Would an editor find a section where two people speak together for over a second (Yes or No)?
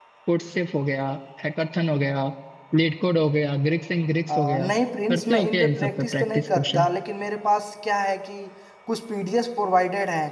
Yes